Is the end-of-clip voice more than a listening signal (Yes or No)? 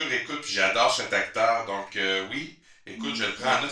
No